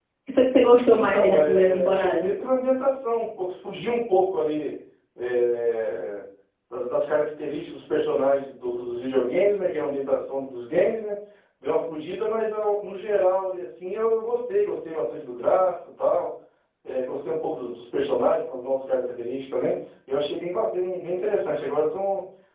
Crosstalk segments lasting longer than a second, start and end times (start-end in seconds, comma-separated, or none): 0.9-2.2